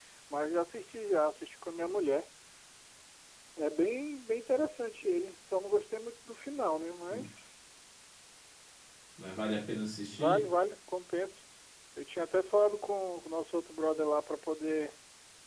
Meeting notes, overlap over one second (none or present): none